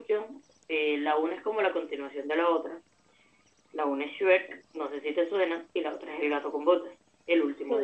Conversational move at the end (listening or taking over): taking over